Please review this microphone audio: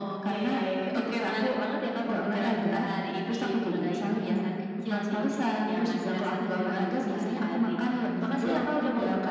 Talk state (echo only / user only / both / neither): echo only